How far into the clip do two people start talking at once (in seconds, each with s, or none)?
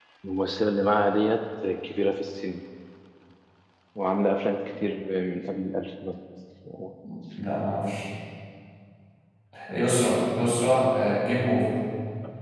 none